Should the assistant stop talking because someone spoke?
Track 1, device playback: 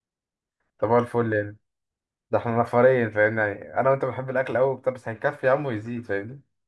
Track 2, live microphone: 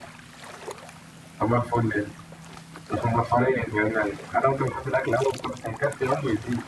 No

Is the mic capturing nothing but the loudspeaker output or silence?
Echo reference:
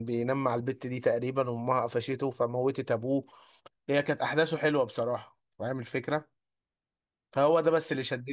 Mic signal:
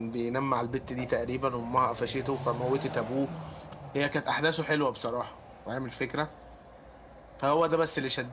Yes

